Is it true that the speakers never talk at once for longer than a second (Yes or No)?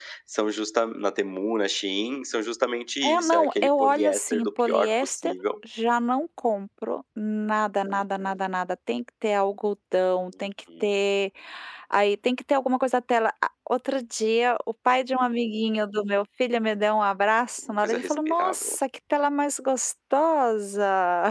No